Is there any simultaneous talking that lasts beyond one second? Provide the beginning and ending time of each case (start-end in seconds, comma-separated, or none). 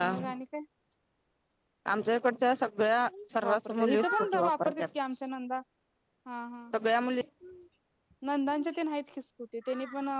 3.4-4.8